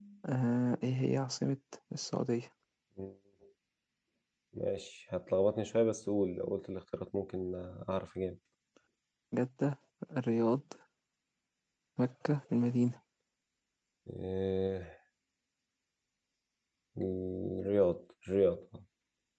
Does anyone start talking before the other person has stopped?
No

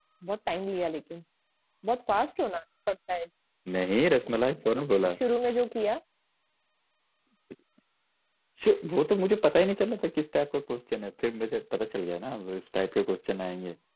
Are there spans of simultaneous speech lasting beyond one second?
No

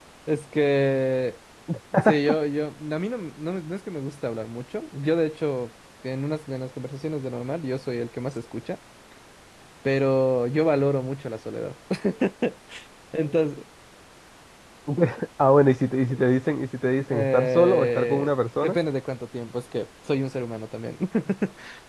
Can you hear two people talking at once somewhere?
Yes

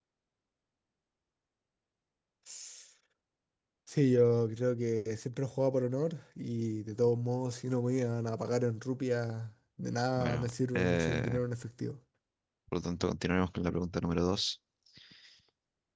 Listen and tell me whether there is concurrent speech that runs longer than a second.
Yes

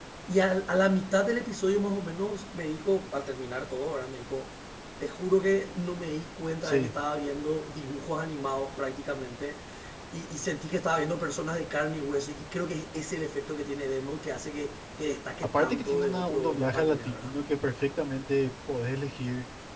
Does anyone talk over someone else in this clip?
Yes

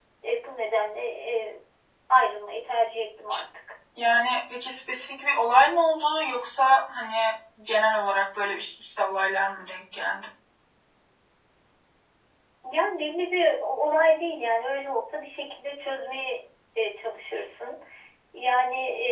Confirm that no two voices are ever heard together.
Yes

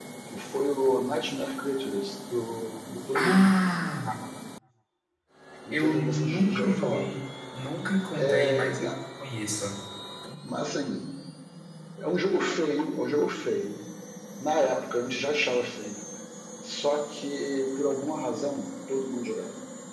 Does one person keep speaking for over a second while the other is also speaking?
Yes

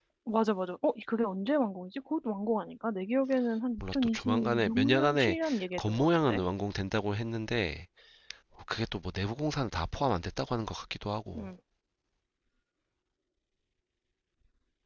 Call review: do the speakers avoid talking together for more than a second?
No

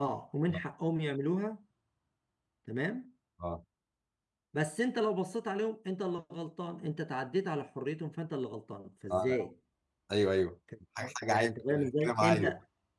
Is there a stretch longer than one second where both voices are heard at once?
Yes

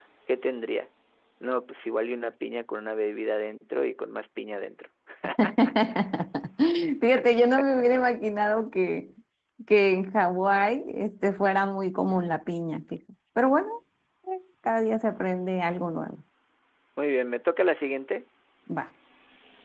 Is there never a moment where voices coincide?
Yes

